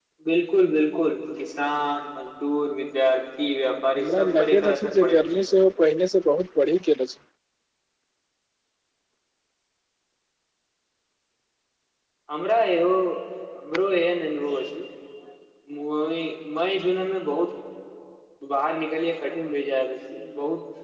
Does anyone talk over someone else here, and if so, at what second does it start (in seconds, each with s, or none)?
4.0 s